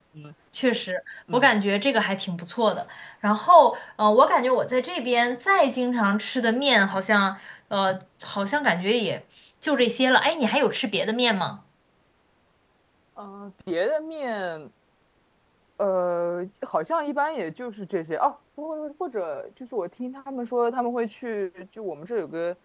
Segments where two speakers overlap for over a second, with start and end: none

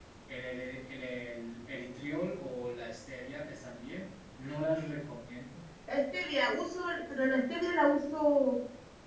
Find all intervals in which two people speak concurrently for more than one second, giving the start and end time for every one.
none

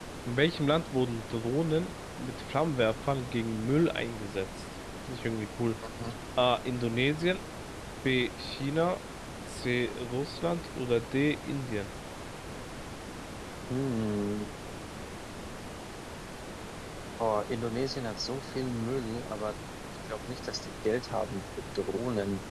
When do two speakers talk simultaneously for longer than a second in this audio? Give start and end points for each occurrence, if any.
none

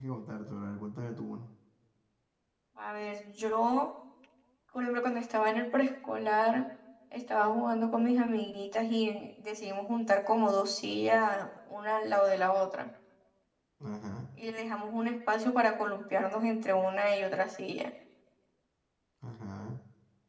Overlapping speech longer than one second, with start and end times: none

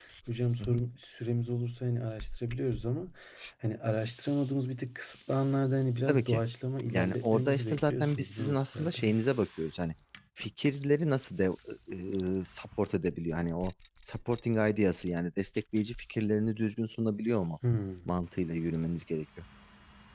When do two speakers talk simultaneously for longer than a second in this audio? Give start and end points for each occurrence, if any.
6.9-9.0

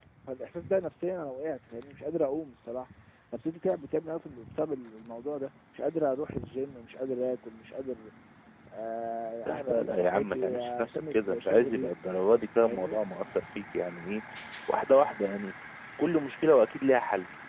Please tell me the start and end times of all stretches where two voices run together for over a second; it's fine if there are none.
9.5-11.9

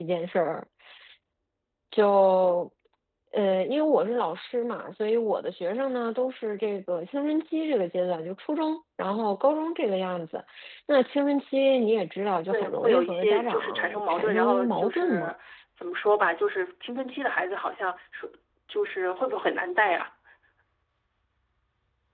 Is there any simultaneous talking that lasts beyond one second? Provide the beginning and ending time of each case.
12.5-15.3

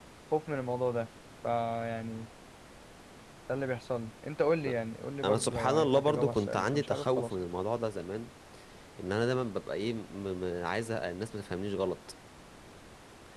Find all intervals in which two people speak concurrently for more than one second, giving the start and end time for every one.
5.2-7.3

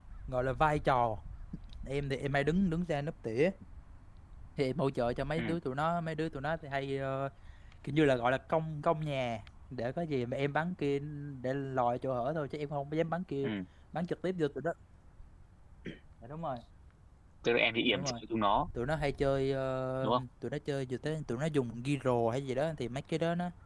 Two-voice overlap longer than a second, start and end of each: none

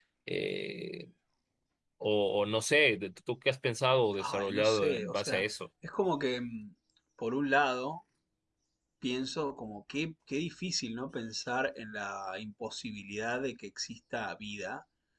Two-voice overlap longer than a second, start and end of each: 4.2-5.4

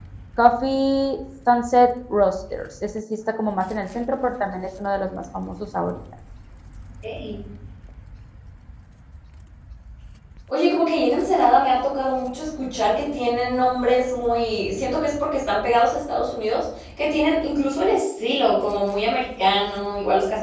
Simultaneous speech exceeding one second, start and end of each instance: none

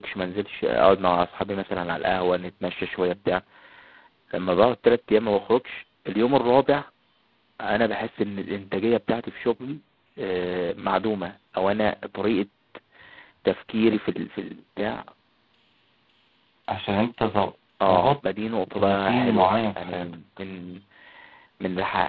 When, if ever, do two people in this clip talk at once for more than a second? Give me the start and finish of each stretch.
18.8-20.1

